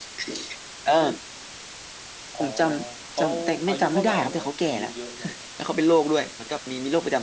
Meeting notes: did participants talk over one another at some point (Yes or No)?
Yes